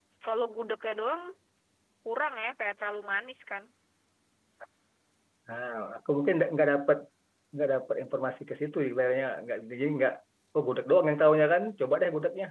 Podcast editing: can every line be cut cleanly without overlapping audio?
Yes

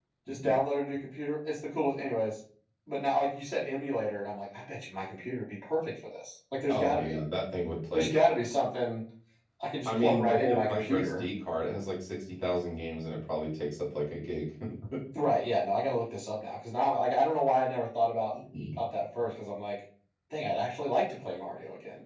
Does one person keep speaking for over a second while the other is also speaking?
Yes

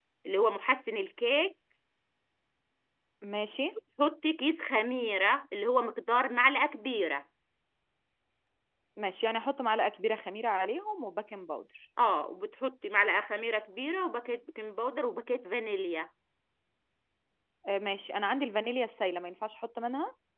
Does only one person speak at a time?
Yes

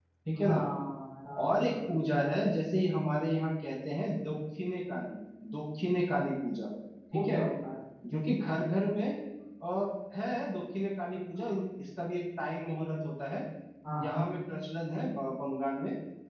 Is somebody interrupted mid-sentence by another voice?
Yes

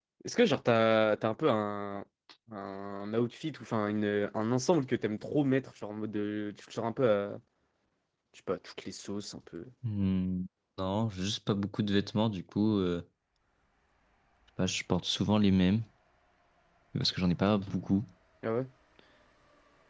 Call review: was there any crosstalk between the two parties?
No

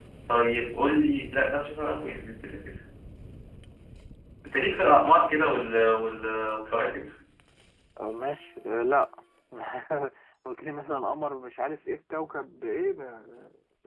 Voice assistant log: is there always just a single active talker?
Yes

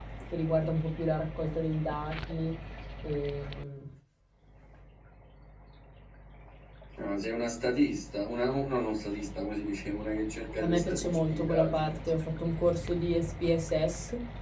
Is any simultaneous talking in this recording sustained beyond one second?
Yes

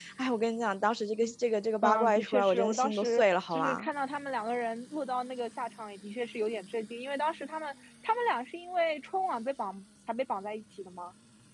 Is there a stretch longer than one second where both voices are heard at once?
Yes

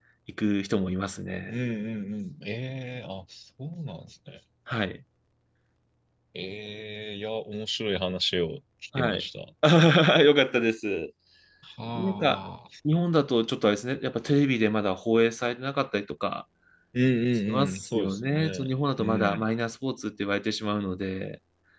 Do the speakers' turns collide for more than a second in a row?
Yes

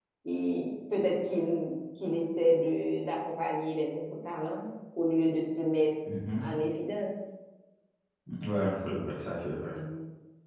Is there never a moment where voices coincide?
Yes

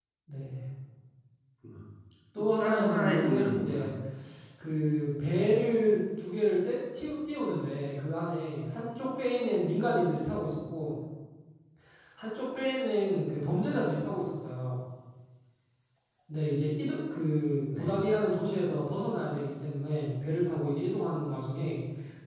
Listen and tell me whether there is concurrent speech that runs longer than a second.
Yes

